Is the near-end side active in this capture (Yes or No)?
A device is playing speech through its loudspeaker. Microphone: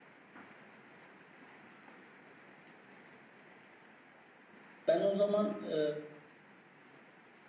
Yes